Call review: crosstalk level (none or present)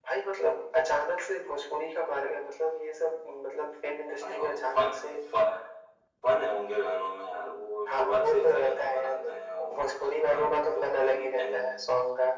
present